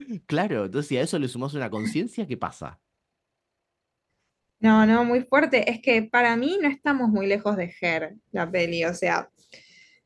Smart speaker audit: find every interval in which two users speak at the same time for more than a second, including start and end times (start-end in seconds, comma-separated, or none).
none